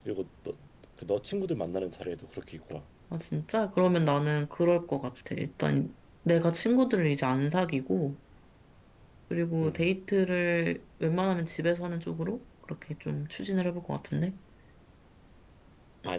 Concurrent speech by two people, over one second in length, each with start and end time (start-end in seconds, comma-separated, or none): none